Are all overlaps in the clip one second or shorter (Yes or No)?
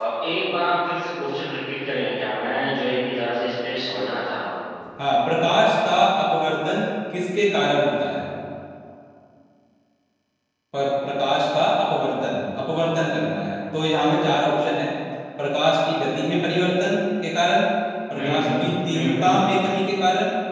No